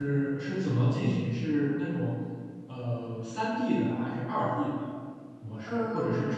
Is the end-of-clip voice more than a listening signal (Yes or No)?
No